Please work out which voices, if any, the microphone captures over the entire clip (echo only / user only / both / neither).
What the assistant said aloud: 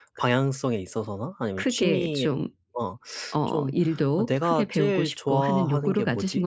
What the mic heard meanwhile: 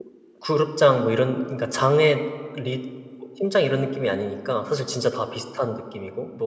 user only